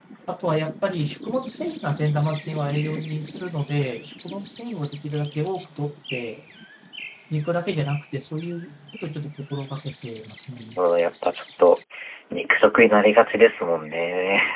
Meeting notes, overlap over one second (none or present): none